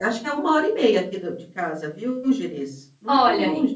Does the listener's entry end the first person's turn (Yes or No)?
Yes